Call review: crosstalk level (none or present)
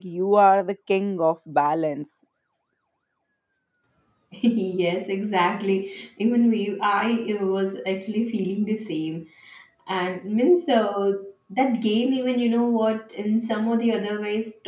none